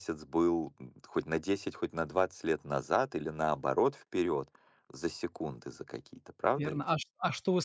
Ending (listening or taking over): taking over